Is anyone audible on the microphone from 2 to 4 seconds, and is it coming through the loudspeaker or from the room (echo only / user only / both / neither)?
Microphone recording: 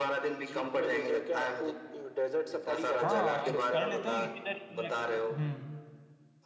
both